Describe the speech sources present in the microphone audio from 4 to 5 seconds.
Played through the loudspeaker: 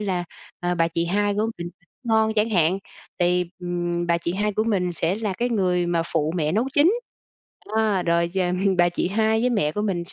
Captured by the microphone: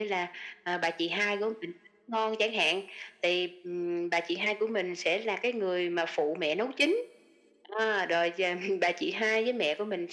echo only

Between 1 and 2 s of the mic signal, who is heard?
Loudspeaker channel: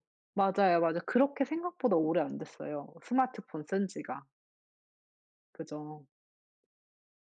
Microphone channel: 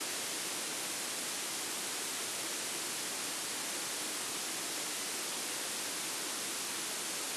neither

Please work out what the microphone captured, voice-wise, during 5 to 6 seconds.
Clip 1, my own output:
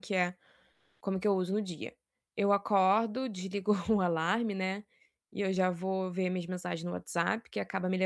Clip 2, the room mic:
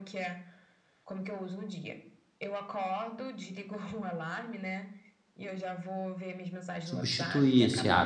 echo only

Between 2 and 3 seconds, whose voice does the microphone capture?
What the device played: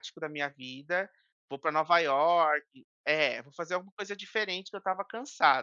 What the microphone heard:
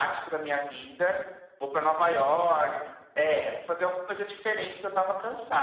echo only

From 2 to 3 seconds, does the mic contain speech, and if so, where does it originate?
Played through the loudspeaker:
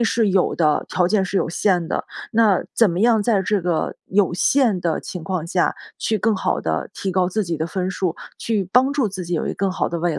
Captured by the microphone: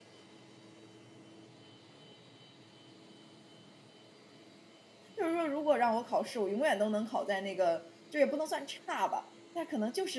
neither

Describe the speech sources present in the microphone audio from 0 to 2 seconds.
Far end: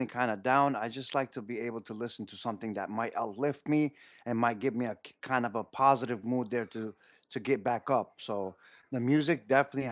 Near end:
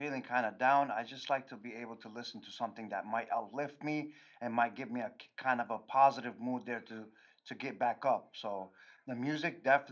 echo only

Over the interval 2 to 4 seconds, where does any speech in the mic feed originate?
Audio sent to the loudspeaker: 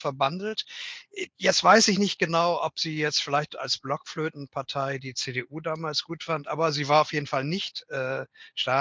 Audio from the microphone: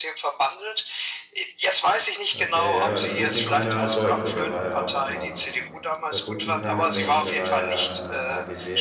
both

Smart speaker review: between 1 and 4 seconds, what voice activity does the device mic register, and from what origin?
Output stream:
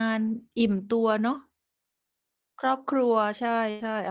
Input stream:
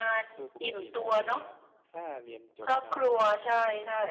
both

